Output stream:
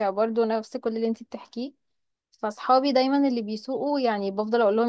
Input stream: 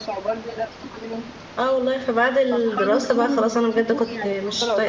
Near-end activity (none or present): present